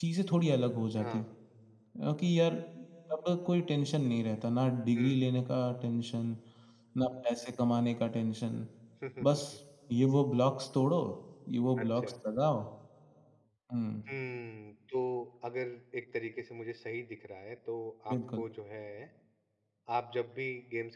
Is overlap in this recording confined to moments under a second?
Yes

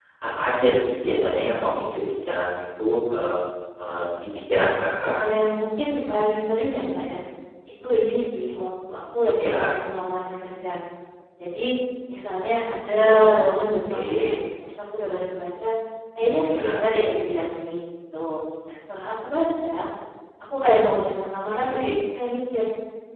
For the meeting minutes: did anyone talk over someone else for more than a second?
Yes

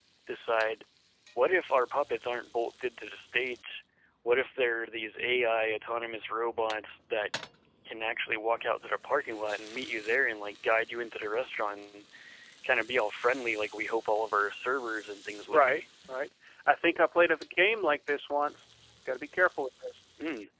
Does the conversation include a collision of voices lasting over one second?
No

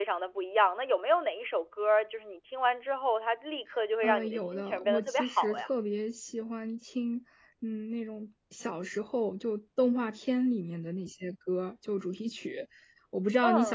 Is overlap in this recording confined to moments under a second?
No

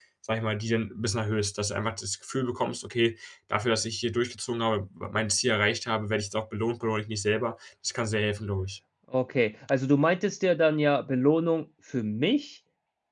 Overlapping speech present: No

